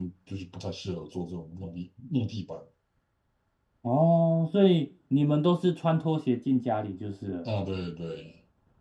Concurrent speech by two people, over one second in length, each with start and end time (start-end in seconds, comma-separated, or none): none